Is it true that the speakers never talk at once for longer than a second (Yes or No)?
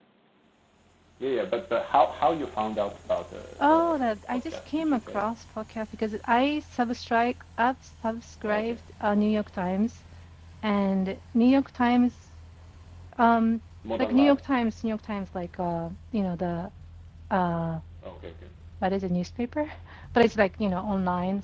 No